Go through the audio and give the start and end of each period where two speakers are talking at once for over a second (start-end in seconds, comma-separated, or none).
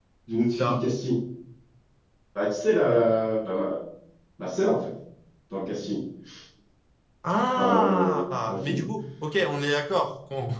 7.6-8.8